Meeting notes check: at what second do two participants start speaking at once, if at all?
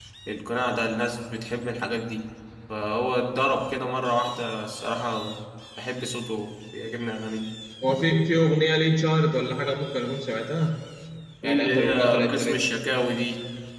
11.4 s

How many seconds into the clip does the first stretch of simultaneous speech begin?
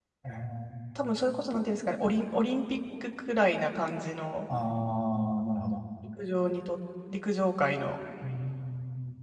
none

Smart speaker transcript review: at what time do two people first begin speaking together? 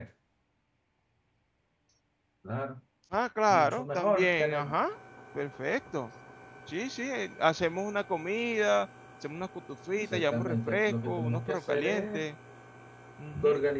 3.5 s

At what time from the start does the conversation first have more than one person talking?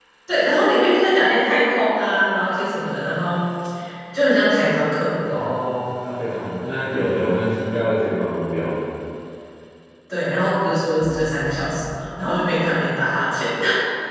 none

